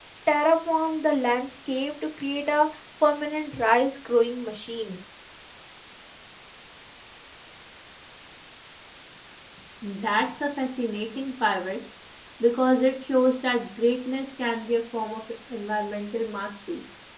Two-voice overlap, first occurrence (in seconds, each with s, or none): none